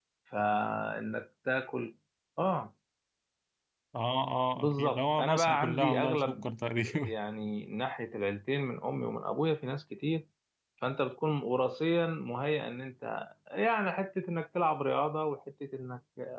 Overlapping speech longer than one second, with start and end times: 4.6-6.5

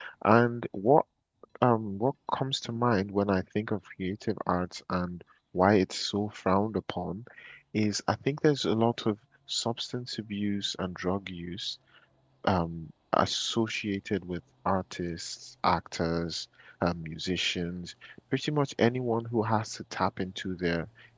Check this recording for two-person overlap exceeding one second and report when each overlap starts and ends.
none

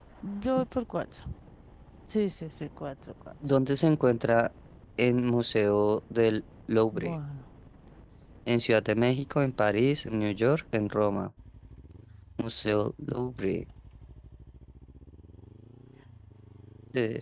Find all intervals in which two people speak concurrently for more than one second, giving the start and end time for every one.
none

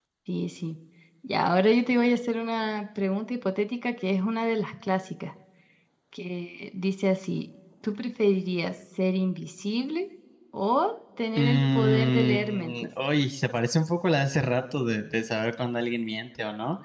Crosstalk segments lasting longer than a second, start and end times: 11.4-12.7

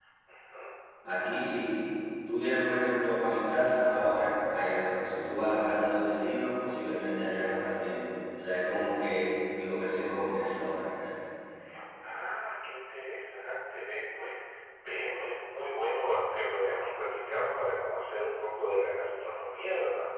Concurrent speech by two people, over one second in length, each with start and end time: none

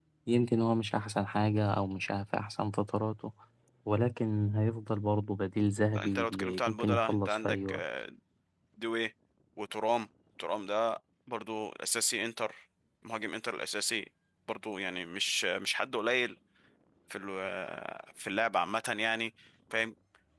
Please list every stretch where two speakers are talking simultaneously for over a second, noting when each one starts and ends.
5.9-7.8

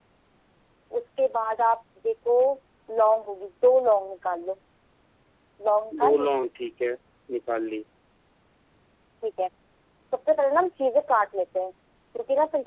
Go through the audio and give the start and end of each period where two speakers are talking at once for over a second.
none

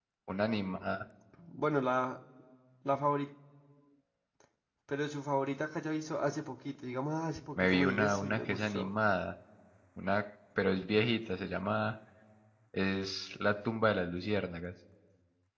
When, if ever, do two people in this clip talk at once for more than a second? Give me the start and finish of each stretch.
7.6-8.9

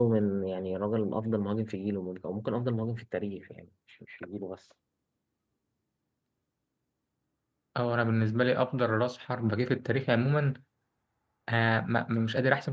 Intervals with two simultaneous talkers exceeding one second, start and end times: none

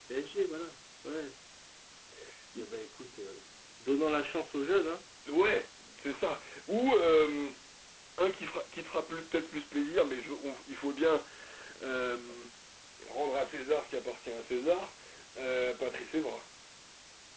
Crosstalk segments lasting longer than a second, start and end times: none

